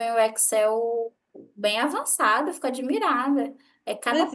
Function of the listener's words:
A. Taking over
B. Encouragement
A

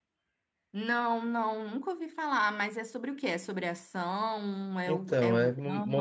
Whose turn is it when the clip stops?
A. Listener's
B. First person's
A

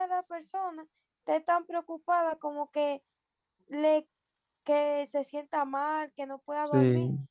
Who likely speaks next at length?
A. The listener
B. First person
B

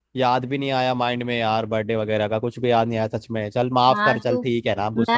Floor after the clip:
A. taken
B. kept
A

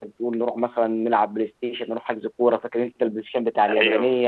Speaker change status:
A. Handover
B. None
A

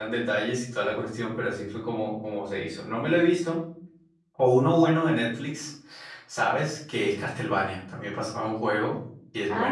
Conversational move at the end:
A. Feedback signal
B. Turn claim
B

